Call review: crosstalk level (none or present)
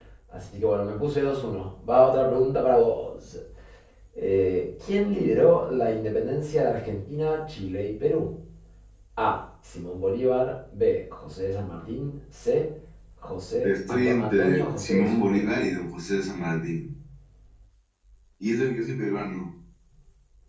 present